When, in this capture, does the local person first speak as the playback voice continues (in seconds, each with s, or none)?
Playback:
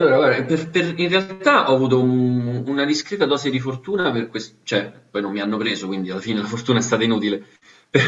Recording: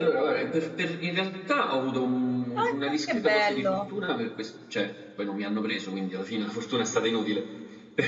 2.5 s